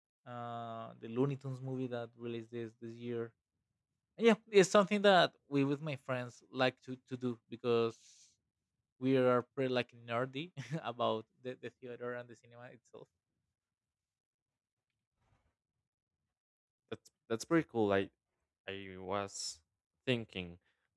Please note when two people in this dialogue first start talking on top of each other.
none

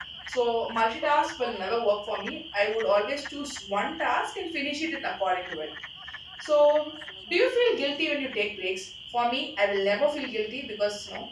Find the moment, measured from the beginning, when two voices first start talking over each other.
none

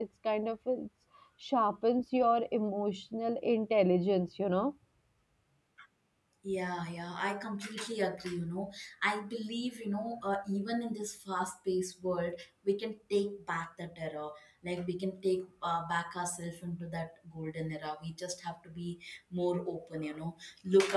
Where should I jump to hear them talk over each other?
none

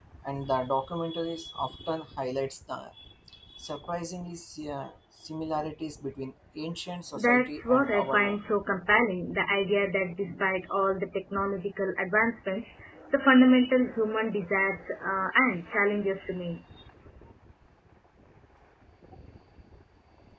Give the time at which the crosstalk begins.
7 s

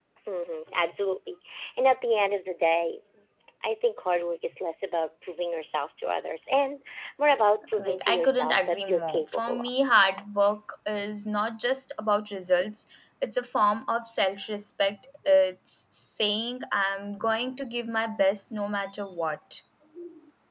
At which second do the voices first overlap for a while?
8 s

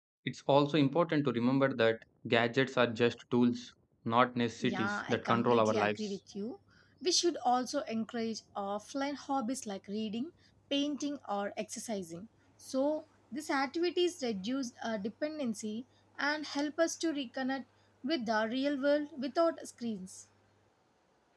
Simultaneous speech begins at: 5 s

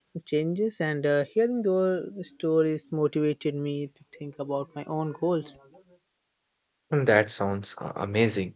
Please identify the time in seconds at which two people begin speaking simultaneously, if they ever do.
none

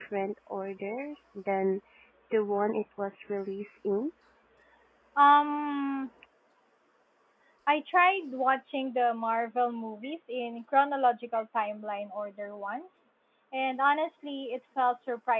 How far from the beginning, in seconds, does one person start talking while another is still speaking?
none

